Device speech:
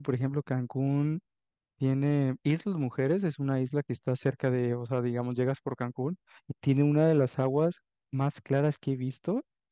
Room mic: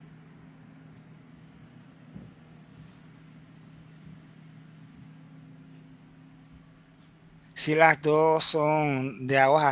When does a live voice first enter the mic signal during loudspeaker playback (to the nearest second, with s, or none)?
8 s